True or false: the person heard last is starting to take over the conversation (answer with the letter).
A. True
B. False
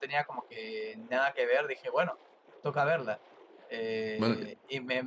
B